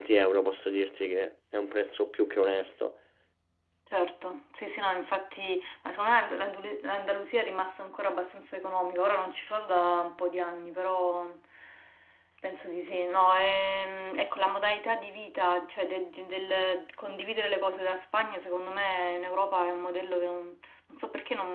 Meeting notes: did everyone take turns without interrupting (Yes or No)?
Yes